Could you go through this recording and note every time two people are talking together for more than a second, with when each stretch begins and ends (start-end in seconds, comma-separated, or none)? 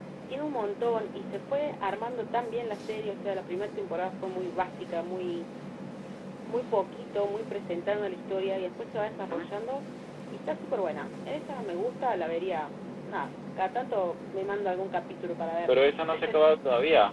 none